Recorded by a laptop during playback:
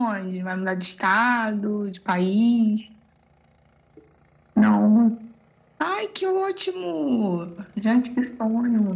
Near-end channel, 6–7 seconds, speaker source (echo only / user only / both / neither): echo only